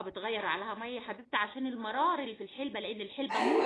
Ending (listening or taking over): taking over